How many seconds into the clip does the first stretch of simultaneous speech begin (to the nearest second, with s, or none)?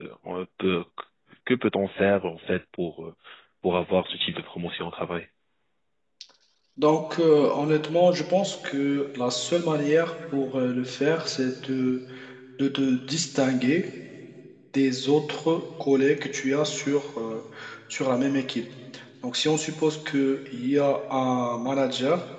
none